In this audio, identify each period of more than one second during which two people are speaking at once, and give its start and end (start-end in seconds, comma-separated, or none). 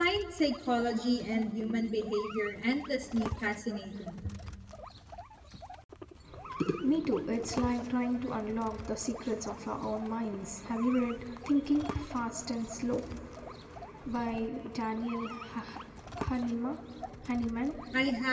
none